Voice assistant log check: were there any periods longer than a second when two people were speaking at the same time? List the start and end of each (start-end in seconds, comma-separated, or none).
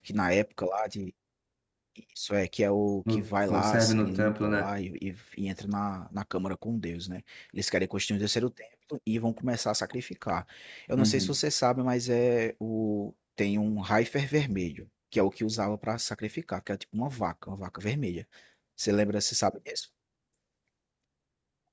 3.1-4.7